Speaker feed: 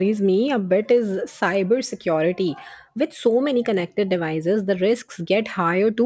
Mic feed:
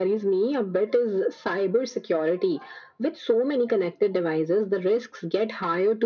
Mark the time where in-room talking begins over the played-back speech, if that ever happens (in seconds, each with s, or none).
none